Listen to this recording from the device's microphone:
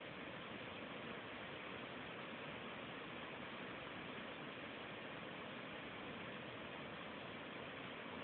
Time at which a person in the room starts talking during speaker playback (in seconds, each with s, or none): none